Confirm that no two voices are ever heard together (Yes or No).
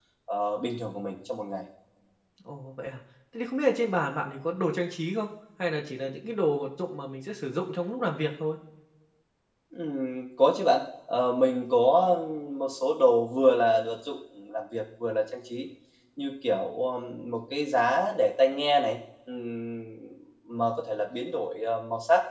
Yes